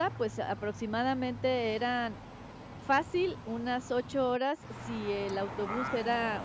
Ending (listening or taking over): listening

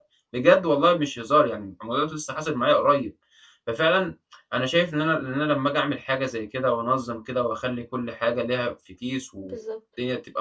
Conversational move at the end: listening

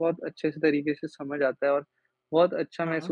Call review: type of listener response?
listening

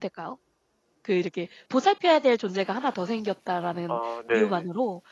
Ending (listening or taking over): listening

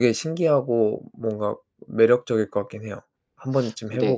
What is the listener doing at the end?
taking over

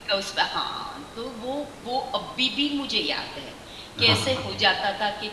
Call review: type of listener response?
listening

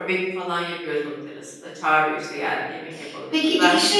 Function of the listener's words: taking over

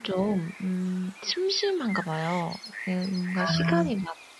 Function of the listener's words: listening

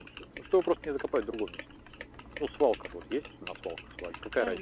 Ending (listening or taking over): taking over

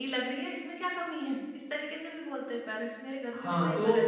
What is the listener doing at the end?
taking over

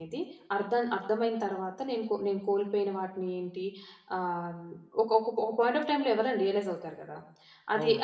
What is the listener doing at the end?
taking over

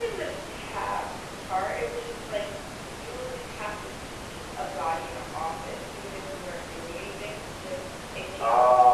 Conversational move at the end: listening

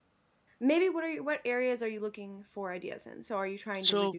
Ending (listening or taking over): listening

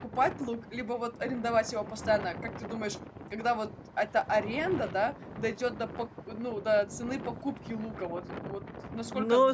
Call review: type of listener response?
taking over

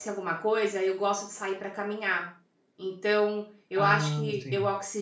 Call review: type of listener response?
listening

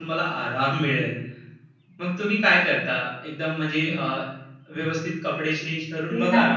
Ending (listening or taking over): taking over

